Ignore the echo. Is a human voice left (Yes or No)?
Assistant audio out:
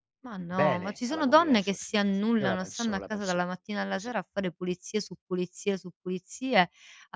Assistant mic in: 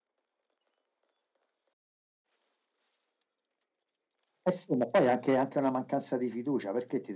Yes